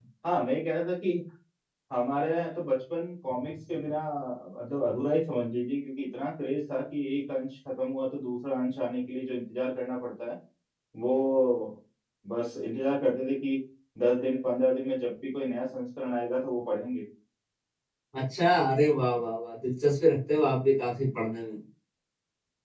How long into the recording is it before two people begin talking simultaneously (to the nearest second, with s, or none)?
none